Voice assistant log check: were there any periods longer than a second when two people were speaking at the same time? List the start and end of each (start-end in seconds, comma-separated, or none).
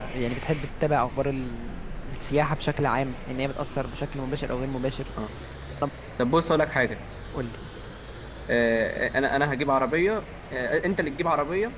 none